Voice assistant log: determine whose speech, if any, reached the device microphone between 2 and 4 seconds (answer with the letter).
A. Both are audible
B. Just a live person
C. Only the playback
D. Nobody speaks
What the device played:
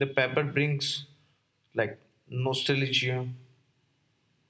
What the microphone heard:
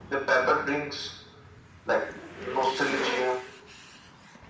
C